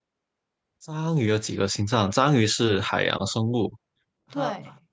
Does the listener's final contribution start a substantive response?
No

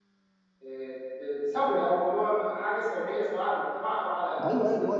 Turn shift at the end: Yes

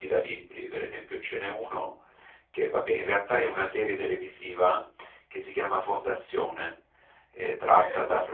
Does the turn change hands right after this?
No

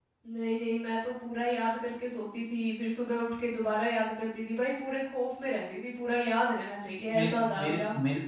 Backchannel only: No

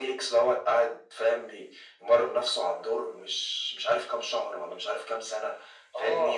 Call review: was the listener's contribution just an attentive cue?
Yes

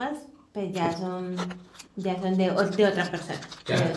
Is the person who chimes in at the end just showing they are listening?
No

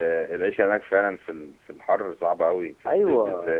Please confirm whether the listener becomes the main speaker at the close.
Yes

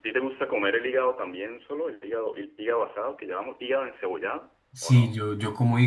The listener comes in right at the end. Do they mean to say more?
Yes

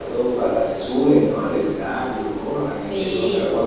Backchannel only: No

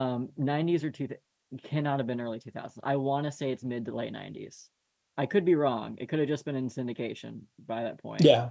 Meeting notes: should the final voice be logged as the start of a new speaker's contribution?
Yes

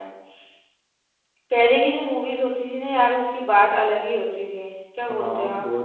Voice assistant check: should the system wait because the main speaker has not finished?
No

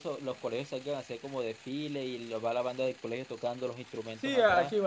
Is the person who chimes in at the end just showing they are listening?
No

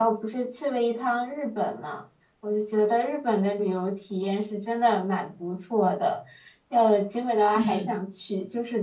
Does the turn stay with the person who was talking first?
Yes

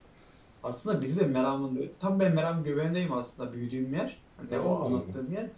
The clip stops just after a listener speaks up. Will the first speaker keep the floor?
Yes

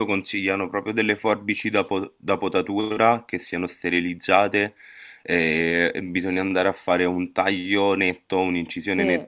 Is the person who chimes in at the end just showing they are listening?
Yes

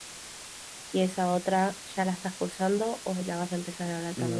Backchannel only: No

